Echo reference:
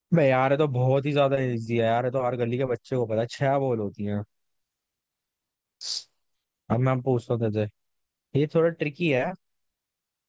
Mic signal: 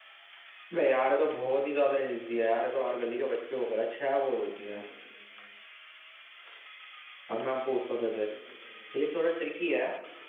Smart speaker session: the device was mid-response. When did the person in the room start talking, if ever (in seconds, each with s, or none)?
none